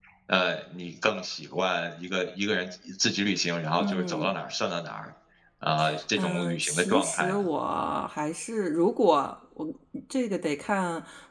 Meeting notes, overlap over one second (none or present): present